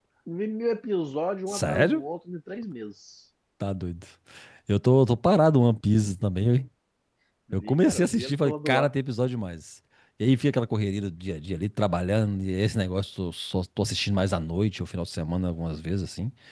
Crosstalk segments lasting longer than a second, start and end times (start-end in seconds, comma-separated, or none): 7.5-8.9